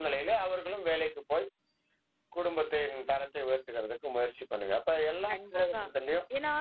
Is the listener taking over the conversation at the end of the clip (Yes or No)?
Yes